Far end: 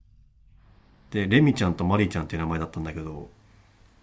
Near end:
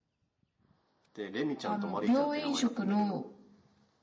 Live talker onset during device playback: 1.6 s

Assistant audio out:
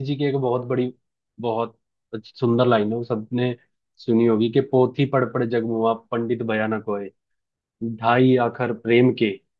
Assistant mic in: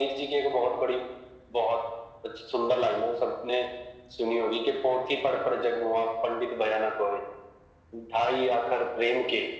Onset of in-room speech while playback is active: none

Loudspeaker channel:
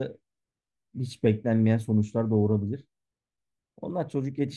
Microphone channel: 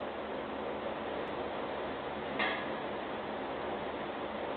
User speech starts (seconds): none

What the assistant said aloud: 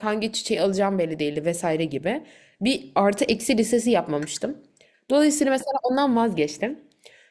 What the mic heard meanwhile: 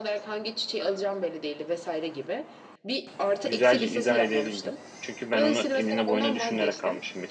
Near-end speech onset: 3.5 s

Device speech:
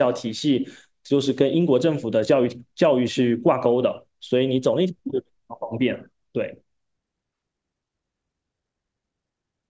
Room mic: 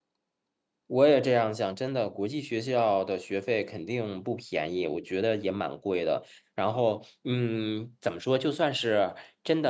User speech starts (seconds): 0.9 s

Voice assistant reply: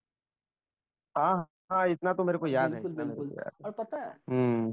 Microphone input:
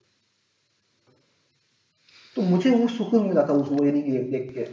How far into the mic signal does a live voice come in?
2.4 s

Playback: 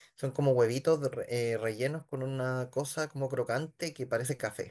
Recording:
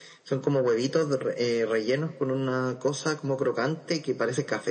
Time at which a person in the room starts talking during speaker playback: none

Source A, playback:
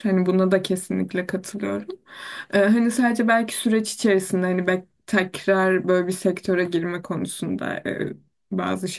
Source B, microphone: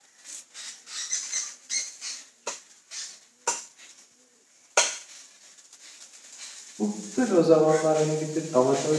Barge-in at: 6.8 s

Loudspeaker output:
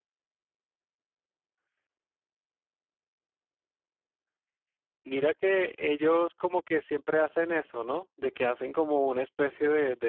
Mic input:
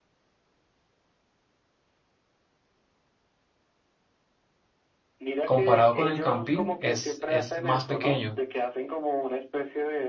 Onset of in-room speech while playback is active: 5.4 s

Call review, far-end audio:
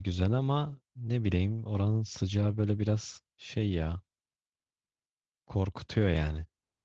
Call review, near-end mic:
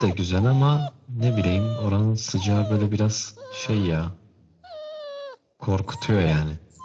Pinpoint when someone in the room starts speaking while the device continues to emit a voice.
none

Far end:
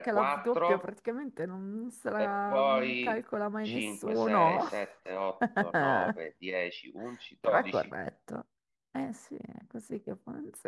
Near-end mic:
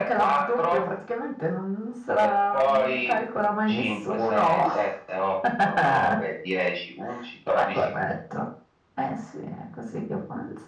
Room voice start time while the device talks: none

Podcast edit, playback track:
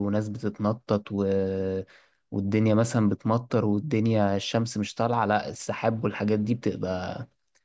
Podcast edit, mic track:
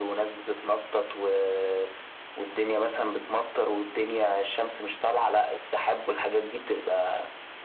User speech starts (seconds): none

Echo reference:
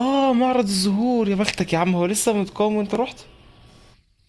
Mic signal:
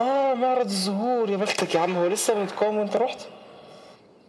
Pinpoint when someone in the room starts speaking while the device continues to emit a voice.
none

